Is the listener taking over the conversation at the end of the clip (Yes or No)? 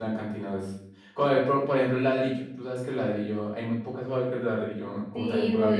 Yes